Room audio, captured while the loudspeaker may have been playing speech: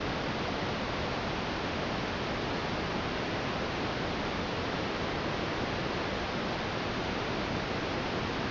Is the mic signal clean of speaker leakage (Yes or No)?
Yes